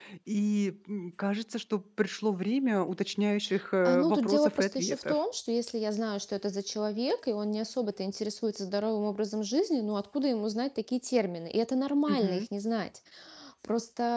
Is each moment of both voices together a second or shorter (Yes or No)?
No